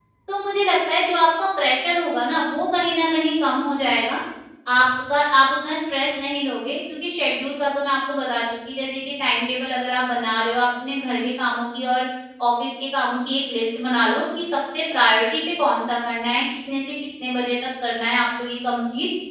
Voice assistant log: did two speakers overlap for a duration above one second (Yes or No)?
No